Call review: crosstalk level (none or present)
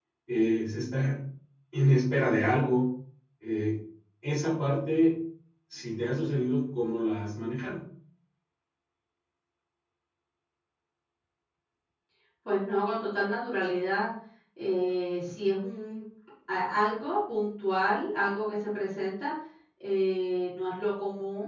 none